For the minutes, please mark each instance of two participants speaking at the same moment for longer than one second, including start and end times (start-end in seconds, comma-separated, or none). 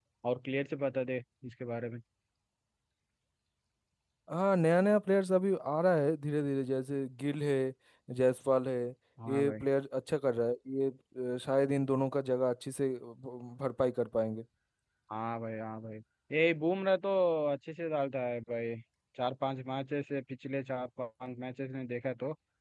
none